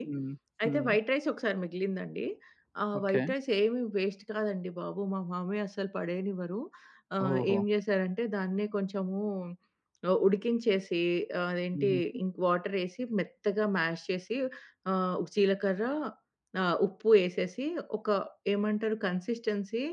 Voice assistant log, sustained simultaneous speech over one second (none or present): none